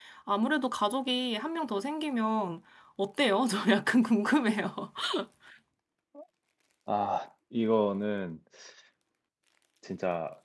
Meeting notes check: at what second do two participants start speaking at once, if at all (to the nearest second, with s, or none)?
none